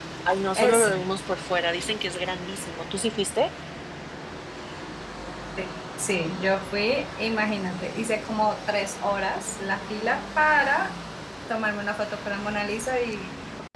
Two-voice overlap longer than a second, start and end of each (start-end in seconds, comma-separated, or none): none